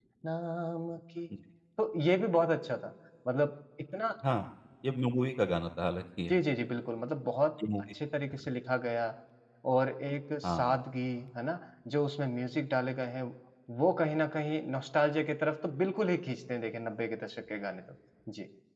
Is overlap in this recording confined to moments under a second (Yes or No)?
Yes